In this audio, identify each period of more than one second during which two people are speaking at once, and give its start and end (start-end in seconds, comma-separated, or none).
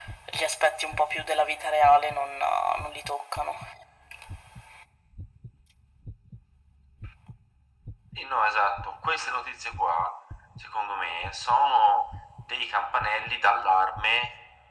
none